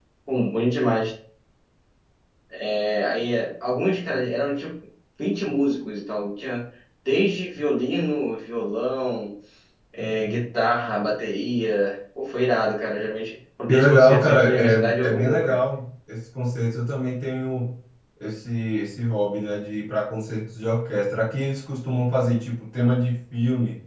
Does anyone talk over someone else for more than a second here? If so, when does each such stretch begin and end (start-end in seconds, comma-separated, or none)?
13.7-15.6